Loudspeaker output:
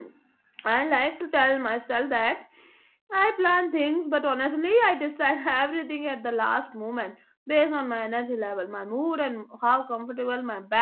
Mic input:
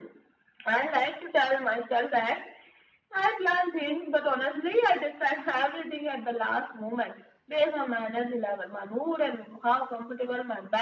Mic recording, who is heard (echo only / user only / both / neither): echo only